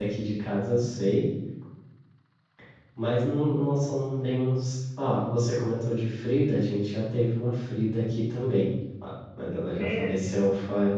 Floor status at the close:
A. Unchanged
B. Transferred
A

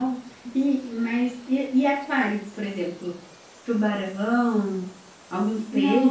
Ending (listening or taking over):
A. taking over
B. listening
A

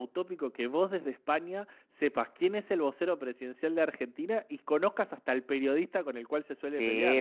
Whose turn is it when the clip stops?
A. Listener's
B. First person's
A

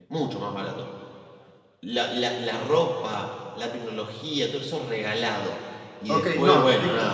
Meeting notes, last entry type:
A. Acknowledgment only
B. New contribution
B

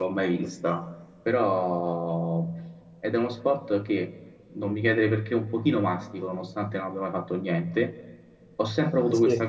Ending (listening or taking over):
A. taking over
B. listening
B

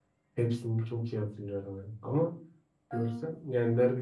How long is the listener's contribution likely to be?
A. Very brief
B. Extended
A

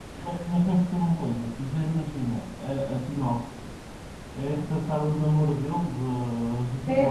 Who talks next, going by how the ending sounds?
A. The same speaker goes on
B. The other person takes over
B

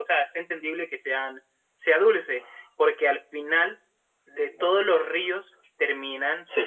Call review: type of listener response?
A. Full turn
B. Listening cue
B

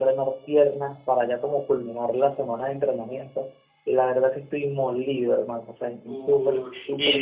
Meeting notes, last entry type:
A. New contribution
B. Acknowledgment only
A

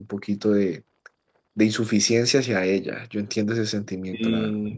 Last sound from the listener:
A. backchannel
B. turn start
B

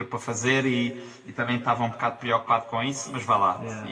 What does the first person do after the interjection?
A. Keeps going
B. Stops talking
A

